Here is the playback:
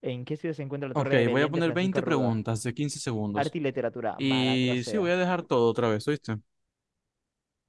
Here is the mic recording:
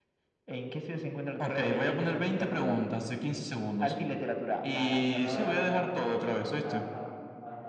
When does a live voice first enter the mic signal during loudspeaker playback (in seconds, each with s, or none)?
5.1 s